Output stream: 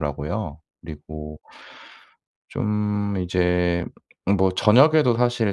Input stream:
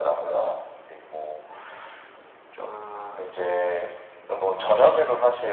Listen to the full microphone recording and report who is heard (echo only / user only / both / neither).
both